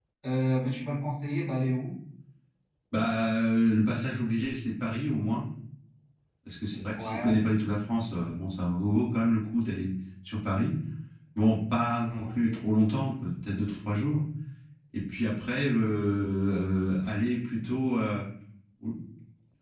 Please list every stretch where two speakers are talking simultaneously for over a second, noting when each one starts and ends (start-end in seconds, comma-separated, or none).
none